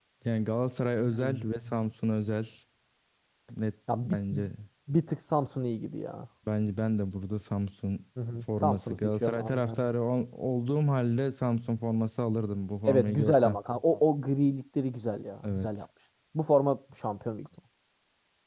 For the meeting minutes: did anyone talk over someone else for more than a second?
Yes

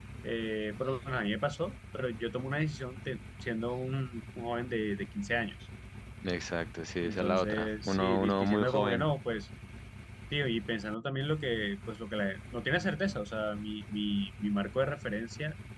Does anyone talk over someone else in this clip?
Yes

